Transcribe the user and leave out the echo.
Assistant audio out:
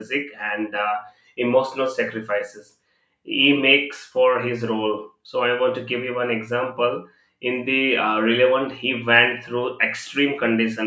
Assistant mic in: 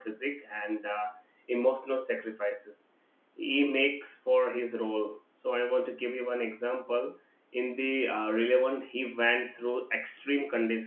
none

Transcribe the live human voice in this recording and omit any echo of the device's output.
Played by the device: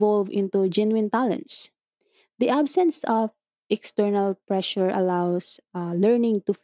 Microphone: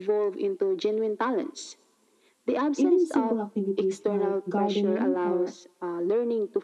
Even simple activities like gardening or

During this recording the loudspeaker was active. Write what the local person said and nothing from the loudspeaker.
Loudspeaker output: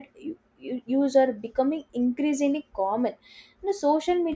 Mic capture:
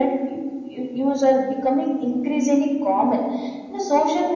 none

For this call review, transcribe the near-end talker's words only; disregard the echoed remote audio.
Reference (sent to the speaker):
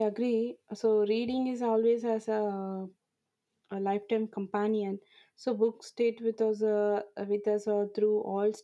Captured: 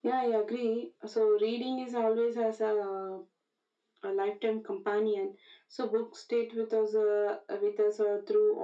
none

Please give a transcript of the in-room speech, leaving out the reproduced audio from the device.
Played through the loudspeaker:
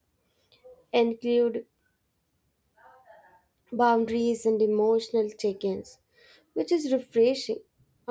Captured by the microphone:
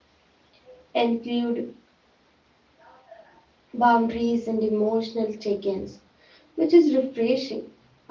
none

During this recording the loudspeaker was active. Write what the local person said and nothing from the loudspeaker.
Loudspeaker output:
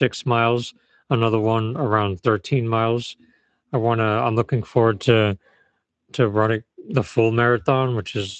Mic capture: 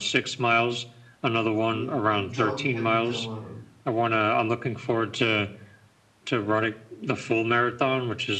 you uh, jogging has become a,

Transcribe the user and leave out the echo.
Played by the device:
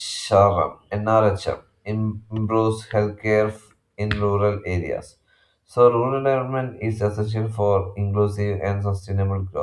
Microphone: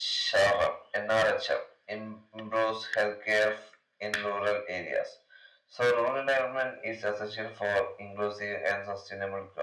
none

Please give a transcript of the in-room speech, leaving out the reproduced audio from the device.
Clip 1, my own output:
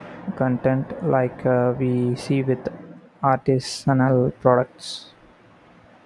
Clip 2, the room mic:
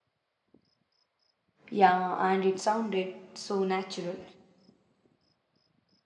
Yeah, and it sounded so natural.

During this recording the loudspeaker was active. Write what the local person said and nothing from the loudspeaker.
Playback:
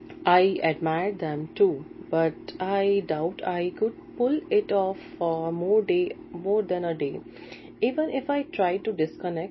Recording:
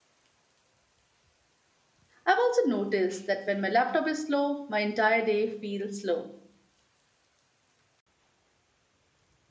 I've also noticed that when my laptop is slow, my entire day feels slow.

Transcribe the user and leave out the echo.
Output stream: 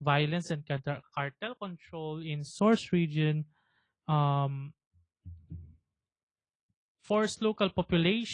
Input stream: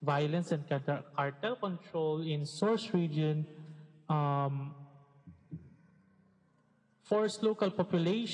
none

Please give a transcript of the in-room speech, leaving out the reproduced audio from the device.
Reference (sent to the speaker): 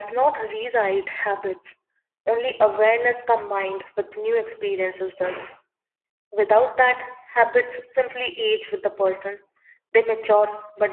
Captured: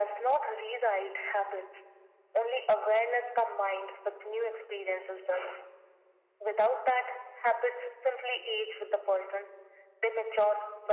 none

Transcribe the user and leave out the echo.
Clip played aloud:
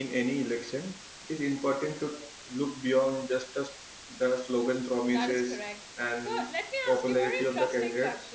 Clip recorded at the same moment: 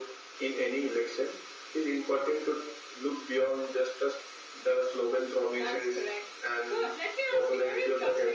none

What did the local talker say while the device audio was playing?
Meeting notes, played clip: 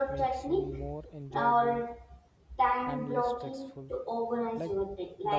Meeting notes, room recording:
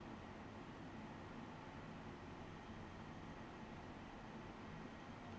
none

